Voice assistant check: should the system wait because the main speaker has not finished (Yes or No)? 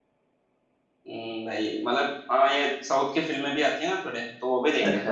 No